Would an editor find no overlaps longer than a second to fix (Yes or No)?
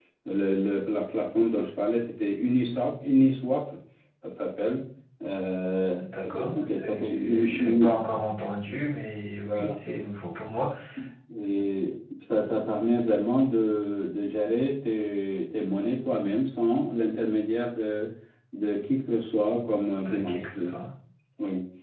No